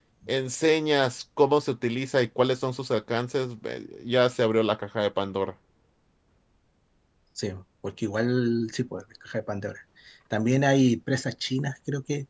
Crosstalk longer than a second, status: none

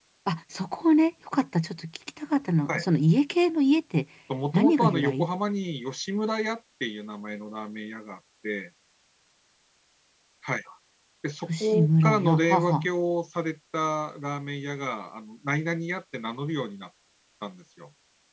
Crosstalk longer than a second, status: present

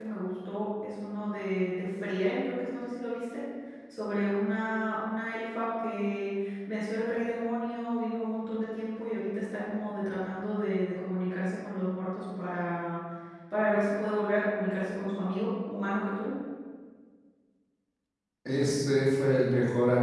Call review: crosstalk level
none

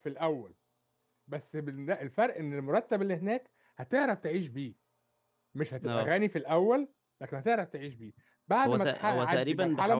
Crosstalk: present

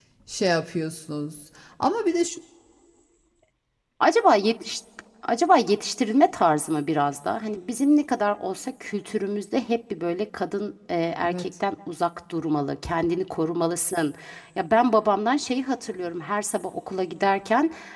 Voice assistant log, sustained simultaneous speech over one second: none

